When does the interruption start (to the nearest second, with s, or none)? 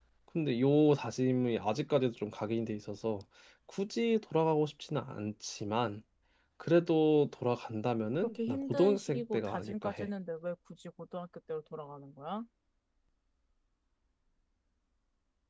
8 s